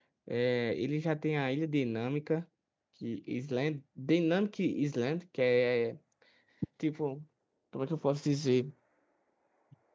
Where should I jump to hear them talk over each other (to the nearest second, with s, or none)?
none